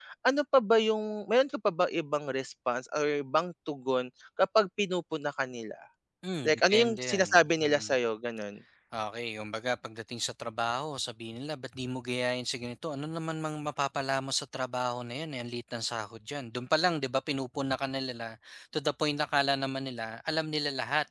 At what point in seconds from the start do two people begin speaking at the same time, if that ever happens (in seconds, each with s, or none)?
6.4 s